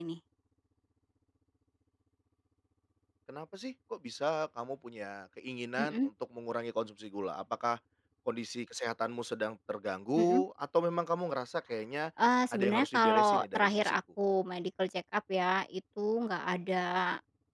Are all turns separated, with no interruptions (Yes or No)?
No